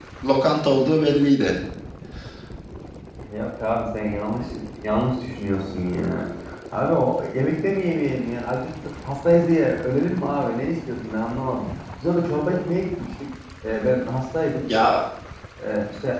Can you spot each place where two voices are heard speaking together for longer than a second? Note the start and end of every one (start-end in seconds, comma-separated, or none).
none